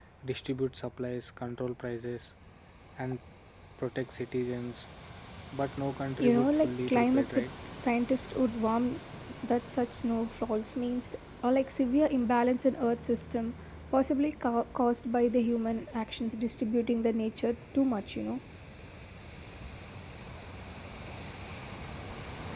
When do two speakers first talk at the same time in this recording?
6.2 s

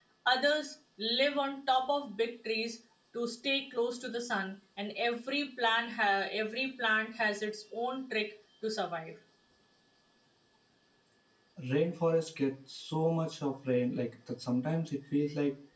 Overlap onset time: none

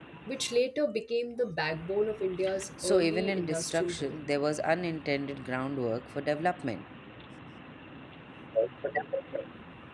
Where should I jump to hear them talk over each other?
2.8 s

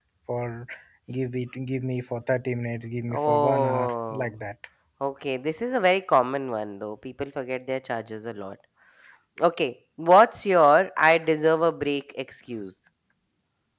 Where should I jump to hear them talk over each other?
3.1 s

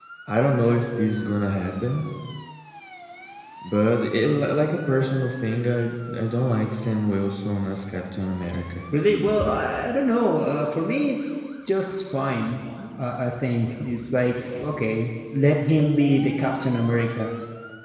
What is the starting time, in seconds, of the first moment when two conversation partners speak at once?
none

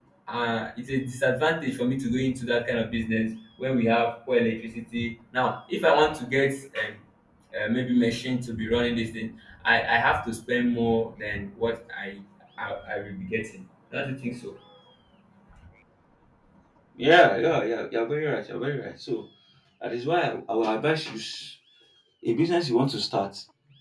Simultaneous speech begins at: none

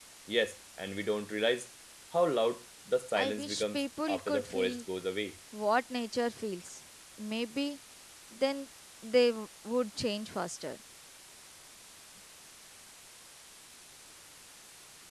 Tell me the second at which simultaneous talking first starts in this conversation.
3.2 s

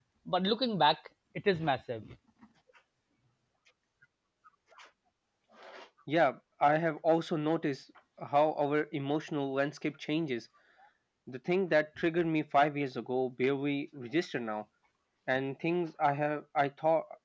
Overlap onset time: none

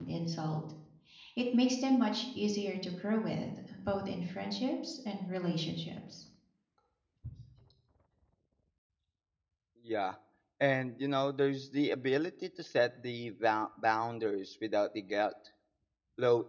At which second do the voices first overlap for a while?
none

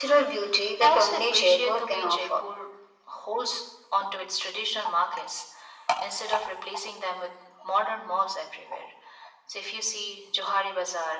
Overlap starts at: 0.8 s

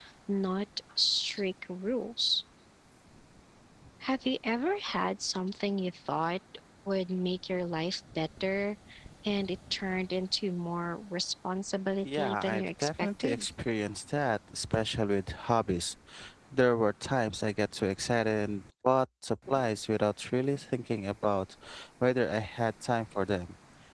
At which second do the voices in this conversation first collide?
12.0 s

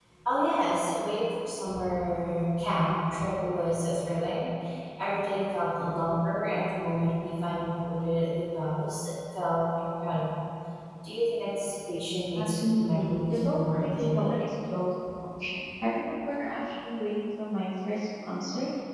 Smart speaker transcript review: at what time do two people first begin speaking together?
12.4 s

